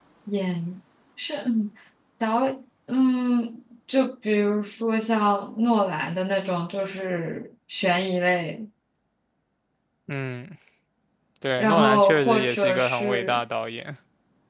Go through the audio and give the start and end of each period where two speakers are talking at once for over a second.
11.6-13.4

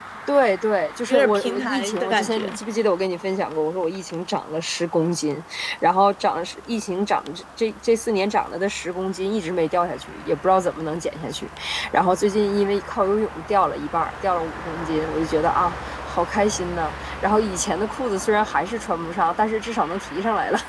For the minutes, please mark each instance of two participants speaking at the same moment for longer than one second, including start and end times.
1.1-2.6

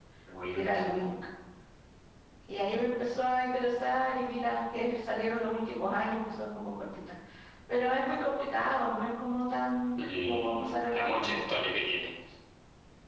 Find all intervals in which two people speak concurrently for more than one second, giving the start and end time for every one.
10.0-11.3

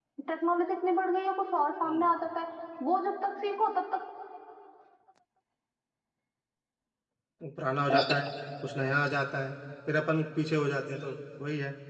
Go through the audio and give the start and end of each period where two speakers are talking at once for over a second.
none

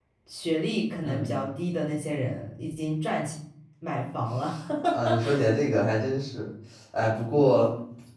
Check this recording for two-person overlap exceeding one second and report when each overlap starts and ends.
none

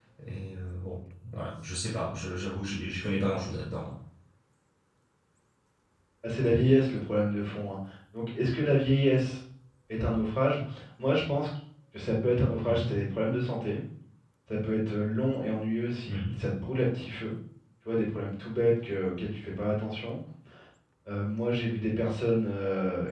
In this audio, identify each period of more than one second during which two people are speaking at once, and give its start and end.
none

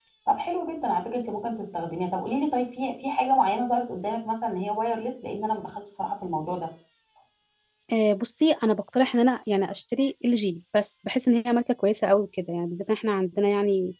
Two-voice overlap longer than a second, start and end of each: none

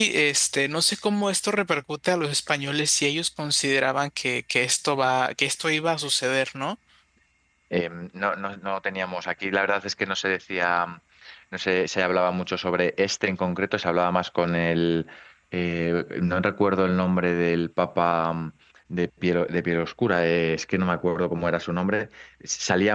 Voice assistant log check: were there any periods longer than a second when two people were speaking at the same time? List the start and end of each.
none

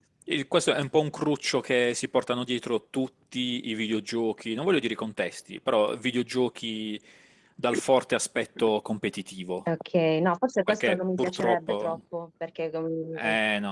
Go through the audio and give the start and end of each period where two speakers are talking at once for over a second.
10.7-12.0

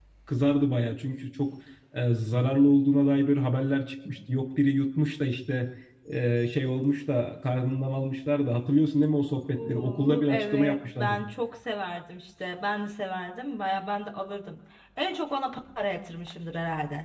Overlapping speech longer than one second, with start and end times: 9.6-11.2

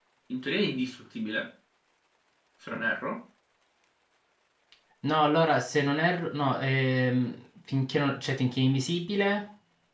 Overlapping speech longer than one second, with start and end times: none

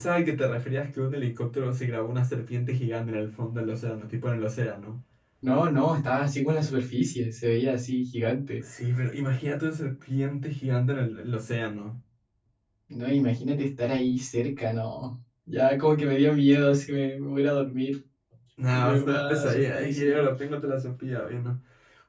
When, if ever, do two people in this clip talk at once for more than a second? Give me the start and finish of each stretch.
18.7-20.2

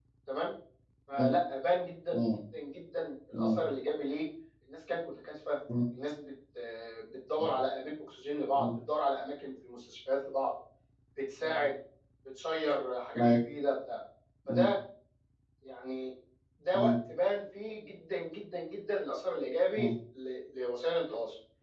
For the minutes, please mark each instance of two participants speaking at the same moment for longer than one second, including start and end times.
none

